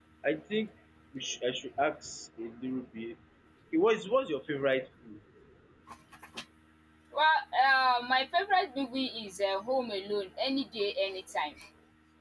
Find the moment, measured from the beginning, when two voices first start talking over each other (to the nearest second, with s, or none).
none